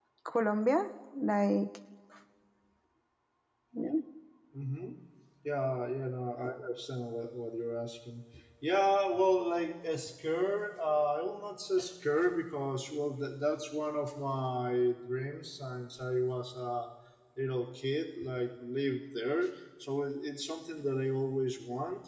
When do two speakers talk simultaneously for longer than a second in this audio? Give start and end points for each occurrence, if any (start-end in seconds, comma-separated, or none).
none